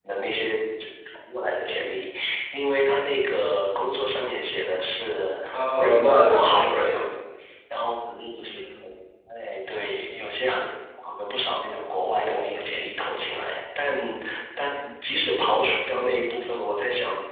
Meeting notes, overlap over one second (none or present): present